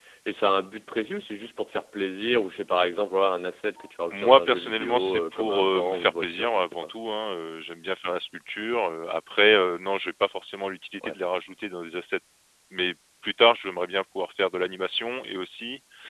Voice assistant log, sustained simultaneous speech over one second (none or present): present